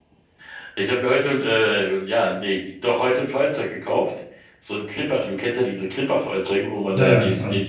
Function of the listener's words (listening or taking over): listening